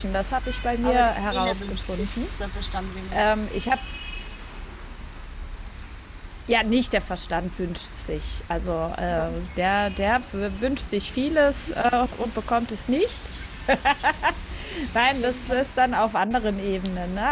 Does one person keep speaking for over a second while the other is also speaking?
Yes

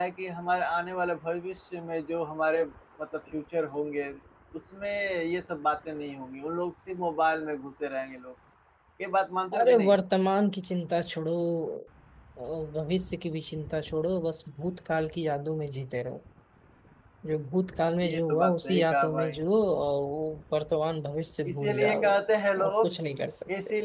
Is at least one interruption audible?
Yes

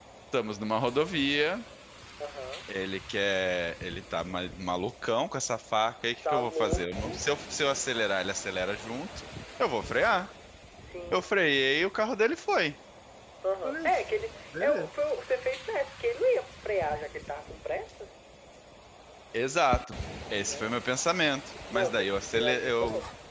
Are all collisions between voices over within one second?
No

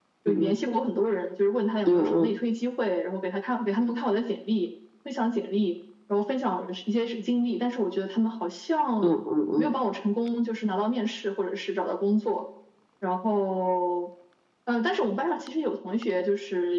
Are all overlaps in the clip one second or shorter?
Yes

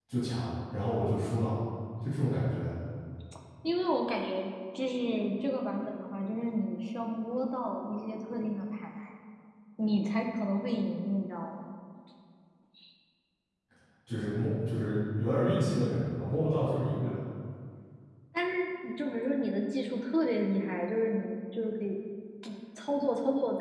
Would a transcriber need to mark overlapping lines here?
No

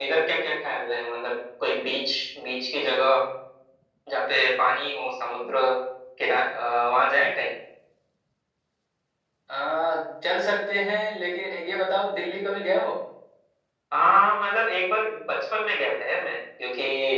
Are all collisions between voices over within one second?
Yes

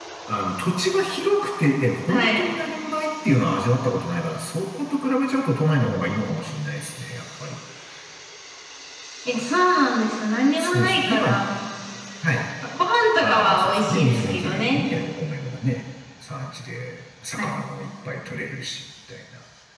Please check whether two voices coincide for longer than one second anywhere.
Yes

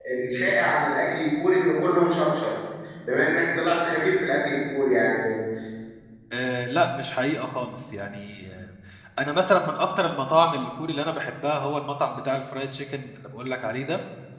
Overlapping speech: No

